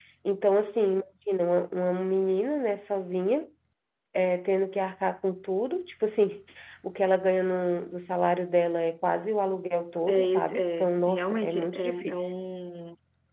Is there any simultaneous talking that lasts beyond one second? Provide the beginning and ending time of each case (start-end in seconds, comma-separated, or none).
10.1-12.3